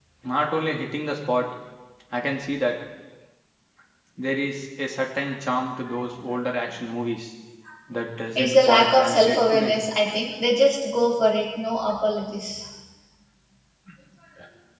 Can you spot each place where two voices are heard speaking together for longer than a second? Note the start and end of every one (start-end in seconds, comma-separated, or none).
8.4-9.8